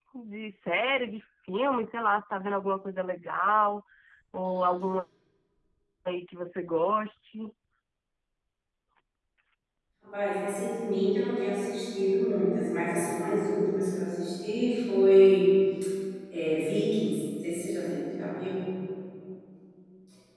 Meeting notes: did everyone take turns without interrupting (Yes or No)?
Yes